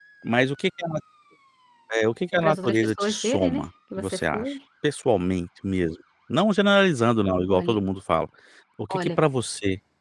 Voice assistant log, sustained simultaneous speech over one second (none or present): present